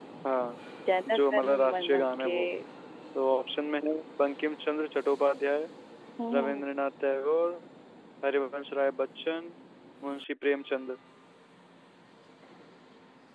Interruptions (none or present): present